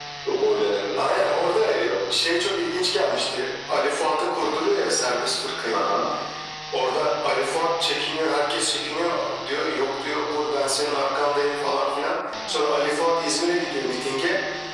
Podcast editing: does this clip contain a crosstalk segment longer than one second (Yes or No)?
No